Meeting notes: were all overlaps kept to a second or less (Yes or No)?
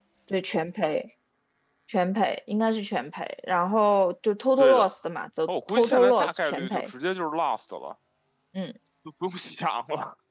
No